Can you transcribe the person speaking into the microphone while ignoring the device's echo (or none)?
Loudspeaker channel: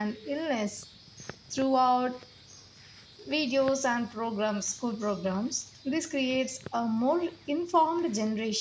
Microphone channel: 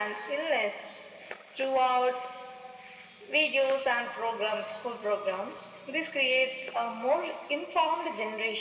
none